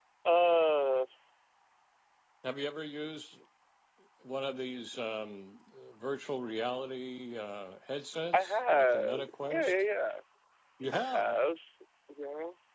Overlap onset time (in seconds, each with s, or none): 8.3 s